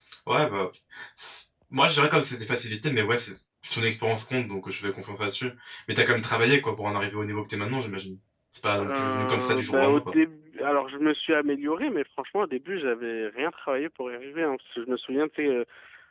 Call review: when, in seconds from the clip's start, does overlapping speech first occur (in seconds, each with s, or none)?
8.7 s